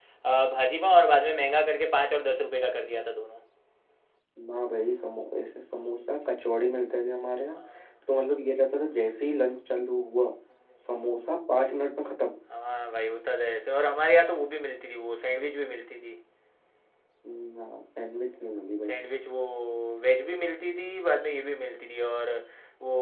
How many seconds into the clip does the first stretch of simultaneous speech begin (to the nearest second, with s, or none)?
none